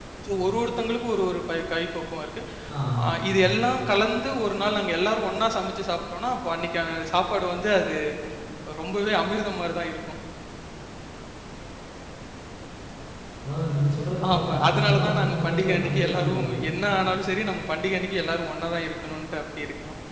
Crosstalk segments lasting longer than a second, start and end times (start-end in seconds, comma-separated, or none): 14.3-16.6